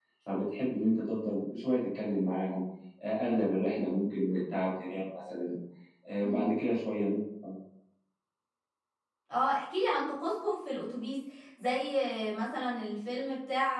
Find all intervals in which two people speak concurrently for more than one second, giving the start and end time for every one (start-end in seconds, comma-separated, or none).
none